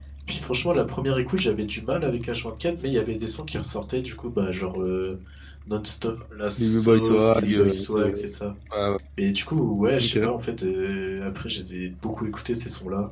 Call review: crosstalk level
present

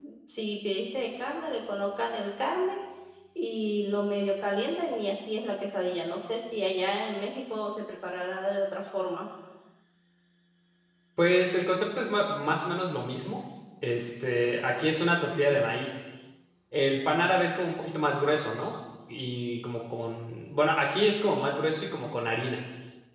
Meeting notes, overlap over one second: none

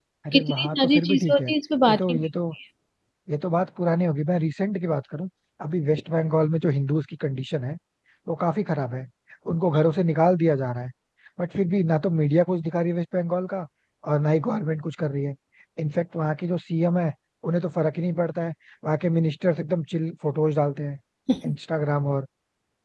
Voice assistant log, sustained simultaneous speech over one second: present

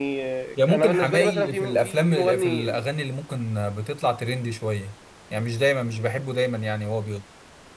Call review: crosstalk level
present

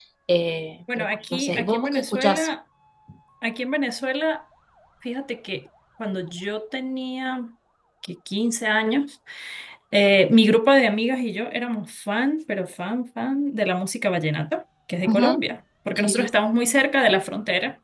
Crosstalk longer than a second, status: present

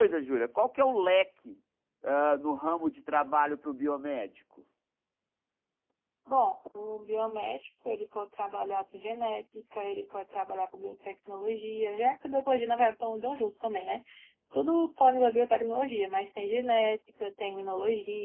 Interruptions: none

